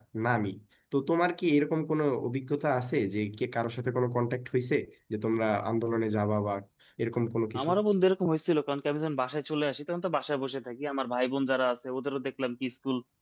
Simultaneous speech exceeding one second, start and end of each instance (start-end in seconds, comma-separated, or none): none